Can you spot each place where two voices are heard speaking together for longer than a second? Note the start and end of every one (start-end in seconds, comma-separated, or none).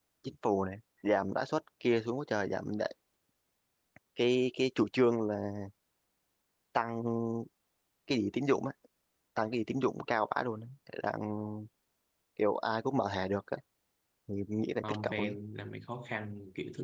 none